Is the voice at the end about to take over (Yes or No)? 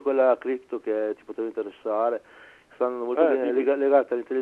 No